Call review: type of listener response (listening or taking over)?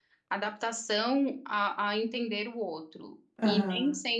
listening